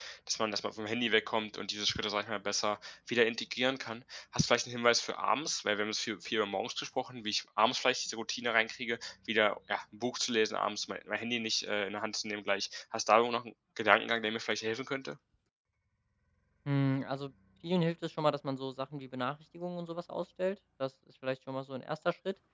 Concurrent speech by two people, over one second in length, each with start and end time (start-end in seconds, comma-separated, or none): none